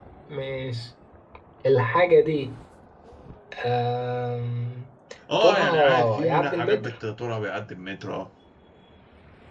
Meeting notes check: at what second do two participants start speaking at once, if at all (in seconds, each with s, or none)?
5.4 s